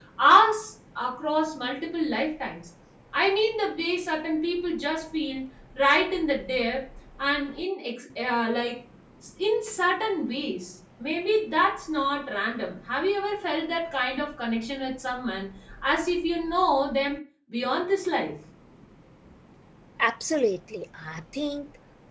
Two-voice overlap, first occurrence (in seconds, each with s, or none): none